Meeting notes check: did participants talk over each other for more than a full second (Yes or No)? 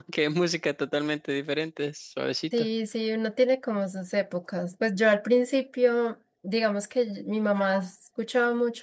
No